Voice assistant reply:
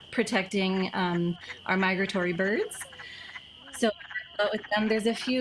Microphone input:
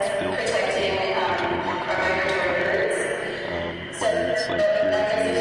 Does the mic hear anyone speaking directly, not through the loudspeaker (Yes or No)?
Yes